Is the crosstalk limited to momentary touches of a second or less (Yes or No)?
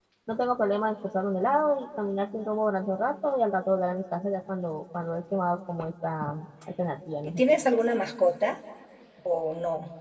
Yes